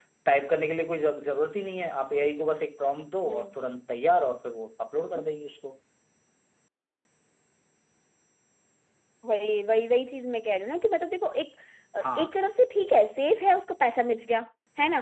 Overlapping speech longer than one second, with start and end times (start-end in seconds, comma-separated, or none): none